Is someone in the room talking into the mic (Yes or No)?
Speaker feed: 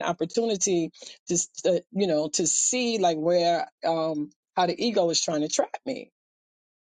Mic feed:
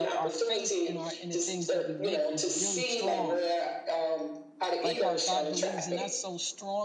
Yes